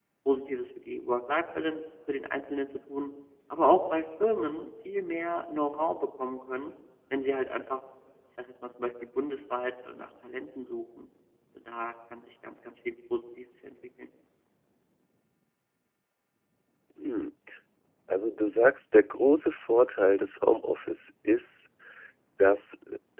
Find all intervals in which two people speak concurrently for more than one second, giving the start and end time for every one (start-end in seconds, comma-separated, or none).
none